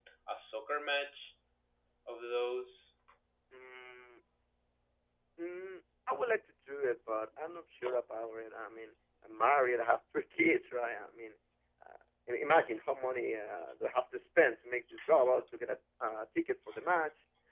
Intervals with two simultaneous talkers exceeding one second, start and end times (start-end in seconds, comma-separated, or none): none